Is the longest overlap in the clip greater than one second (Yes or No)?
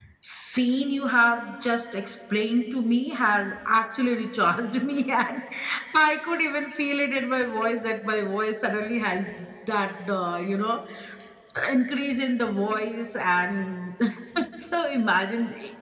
No